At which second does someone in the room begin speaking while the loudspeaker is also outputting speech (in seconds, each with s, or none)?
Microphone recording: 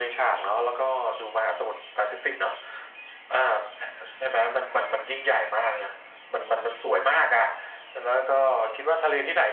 none